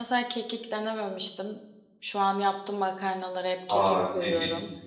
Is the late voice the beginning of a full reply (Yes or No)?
Yes